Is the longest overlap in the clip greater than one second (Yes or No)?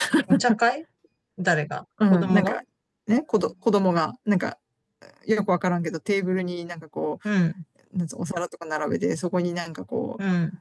No